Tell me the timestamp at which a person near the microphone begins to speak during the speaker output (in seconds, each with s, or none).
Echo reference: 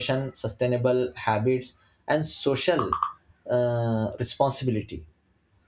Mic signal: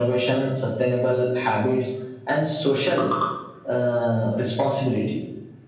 none